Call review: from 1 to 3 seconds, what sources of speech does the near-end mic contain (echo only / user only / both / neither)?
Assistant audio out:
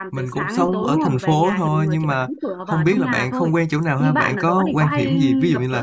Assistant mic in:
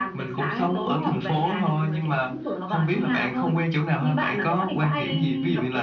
echo only